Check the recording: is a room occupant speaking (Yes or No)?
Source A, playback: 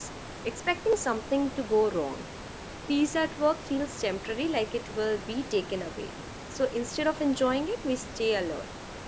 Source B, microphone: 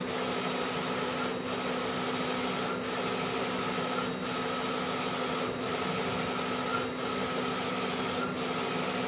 No